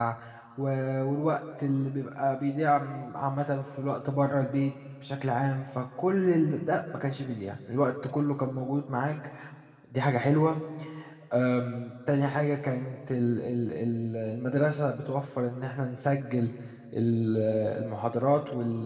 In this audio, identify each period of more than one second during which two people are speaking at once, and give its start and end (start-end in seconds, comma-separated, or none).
none